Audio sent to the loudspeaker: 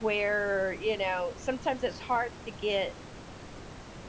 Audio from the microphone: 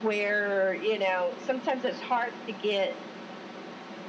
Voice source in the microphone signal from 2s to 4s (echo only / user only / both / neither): echo only